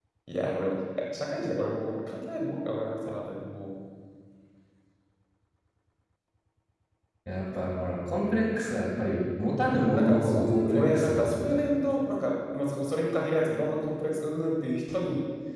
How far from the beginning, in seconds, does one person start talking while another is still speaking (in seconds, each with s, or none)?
9.6 s